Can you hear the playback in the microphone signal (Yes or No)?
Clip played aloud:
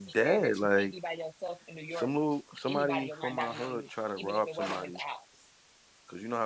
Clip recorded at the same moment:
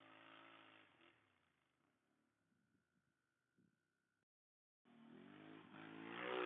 No